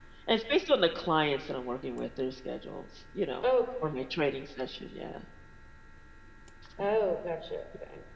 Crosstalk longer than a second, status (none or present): none